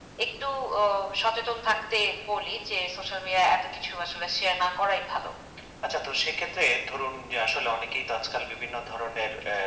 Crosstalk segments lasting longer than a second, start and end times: none

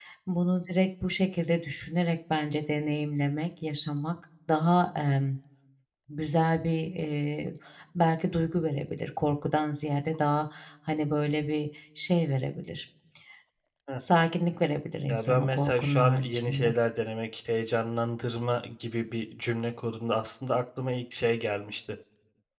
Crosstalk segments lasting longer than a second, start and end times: 15.1-16.7

